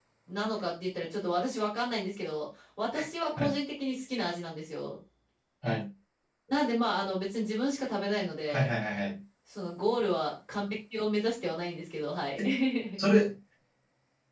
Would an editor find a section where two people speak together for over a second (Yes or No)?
No